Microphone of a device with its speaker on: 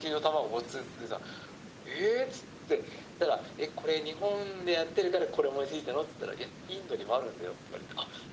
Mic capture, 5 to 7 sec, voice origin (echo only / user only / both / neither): echo only